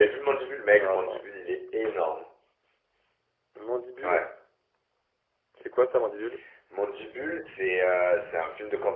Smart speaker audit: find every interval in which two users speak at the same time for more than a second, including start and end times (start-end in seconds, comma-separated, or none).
none